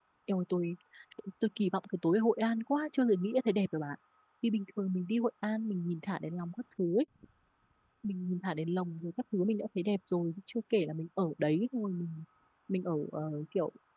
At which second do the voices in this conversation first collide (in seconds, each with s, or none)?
none